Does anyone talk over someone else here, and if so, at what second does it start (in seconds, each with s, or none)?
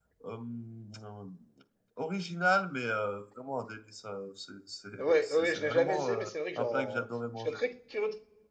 5.0 s